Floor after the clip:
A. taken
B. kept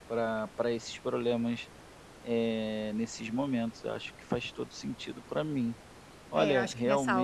A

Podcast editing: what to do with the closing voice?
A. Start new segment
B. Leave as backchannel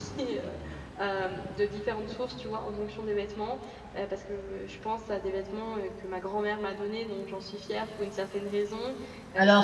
A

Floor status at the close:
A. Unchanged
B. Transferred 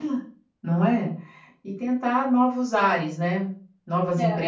B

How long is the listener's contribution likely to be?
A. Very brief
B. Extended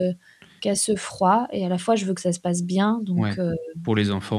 B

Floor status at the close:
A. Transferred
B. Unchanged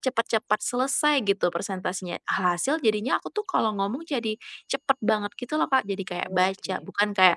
B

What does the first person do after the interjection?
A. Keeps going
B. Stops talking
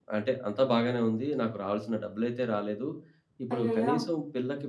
A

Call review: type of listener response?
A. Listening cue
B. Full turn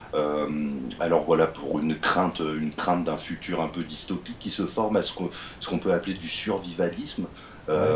A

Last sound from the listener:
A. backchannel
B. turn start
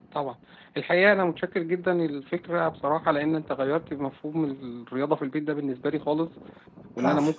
A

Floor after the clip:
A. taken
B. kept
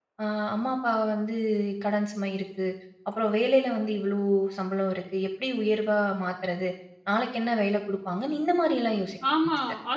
A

